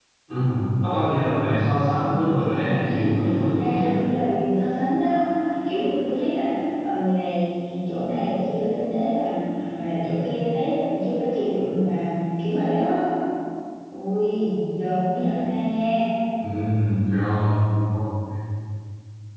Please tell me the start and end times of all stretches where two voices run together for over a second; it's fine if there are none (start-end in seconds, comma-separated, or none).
2.3-3.9